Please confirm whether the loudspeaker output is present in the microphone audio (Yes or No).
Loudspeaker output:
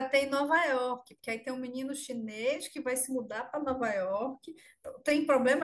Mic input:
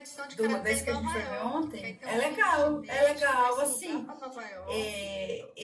Yes